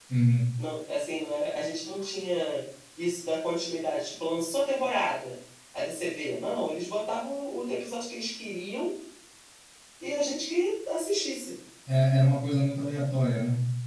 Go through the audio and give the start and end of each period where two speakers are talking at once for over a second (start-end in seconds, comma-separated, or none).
none